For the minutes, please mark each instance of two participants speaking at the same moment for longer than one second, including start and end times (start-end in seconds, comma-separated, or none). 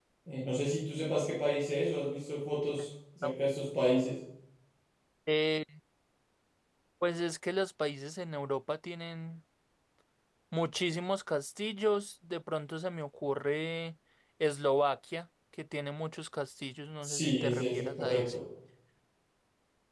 17.0-18.4